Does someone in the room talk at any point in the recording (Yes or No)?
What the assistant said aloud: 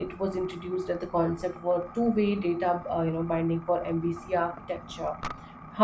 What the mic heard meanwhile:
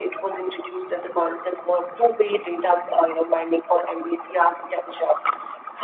No